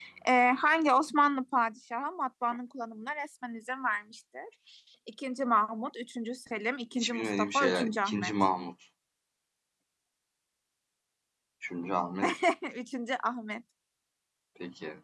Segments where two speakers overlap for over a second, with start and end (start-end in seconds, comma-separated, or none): 7.0-8.3